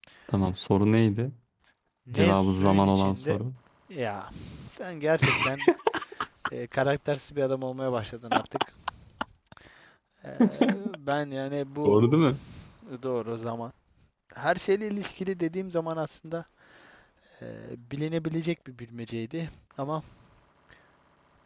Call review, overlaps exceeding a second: present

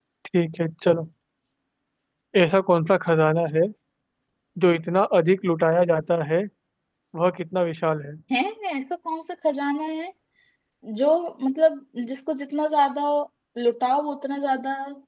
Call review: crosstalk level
none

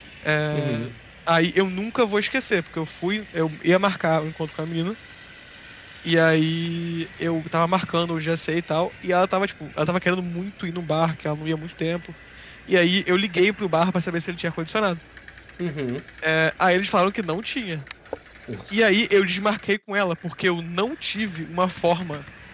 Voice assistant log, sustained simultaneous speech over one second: none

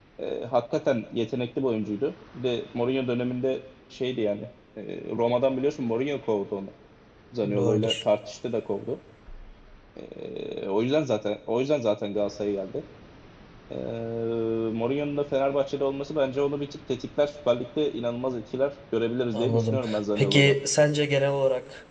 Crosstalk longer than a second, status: present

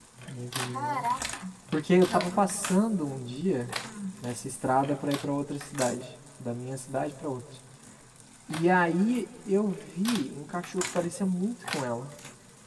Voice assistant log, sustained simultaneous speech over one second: none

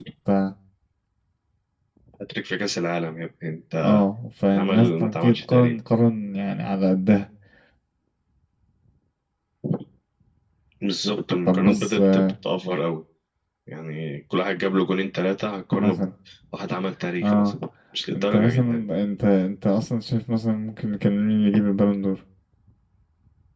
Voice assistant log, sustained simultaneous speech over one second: present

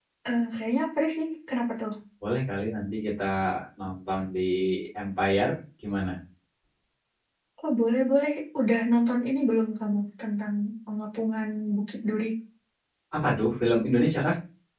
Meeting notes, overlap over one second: none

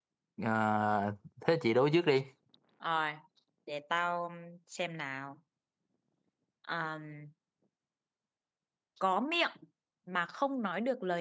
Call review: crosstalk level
none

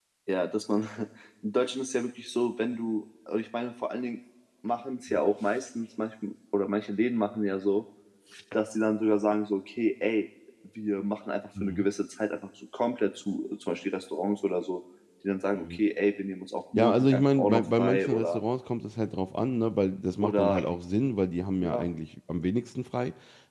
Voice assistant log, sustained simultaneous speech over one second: present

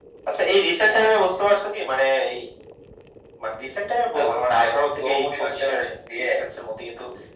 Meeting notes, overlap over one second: present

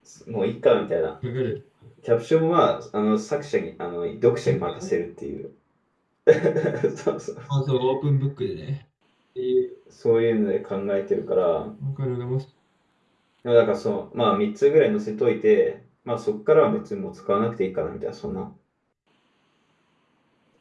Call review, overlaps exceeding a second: none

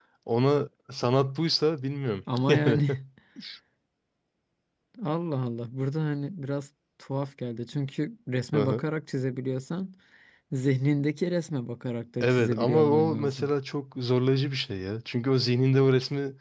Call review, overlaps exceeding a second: present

